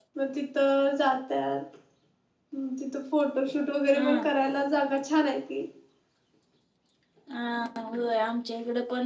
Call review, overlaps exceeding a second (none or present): none